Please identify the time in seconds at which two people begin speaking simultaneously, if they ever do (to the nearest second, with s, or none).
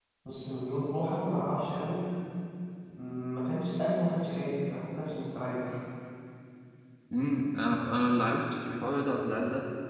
none